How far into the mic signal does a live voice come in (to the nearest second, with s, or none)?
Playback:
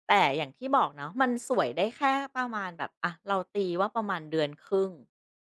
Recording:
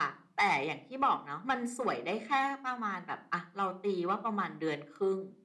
none